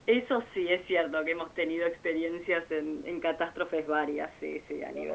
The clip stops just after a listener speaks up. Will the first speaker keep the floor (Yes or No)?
No